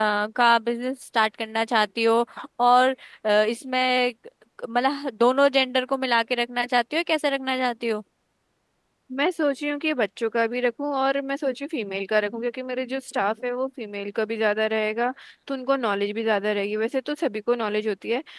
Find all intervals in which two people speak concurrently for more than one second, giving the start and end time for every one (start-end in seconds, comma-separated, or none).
none